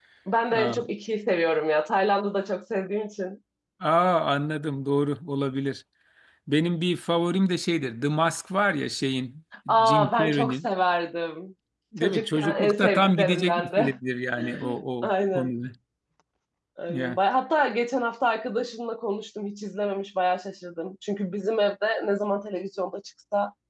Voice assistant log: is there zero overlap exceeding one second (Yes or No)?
No